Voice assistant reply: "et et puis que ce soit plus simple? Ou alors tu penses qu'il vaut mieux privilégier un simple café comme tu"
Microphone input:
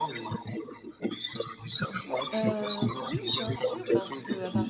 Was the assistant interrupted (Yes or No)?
Yes